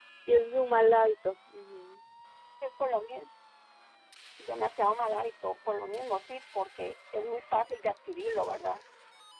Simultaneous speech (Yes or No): No